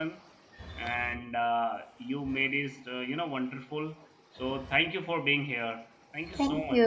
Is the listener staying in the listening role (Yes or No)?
No